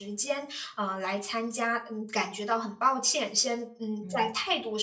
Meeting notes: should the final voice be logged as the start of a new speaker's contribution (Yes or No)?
No